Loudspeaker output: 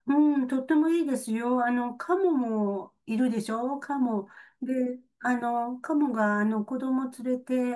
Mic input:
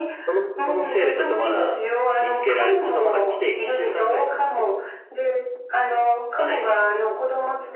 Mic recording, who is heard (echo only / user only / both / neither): both